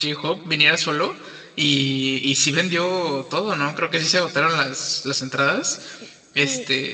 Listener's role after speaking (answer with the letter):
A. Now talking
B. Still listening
A